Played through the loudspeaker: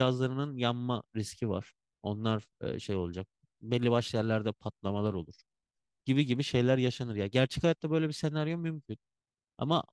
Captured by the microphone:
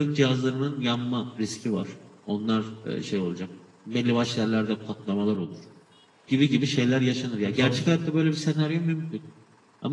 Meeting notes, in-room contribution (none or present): present